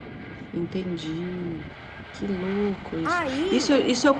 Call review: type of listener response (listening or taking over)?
listening